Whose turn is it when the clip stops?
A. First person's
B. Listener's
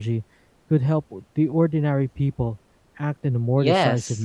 B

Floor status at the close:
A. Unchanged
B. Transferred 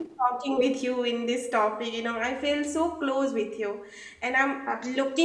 A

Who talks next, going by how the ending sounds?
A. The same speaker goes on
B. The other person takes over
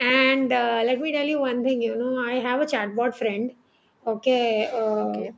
A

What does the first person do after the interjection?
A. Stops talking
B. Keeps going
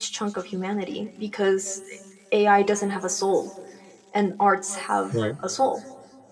B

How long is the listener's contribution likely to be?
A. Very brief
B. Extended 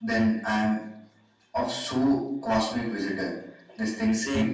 B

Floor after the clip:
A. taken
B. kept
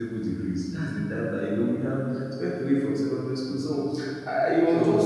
B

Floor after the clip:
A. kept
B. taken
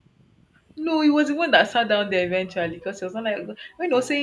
A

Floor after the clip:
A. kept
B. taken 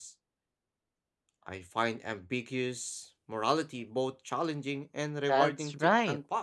B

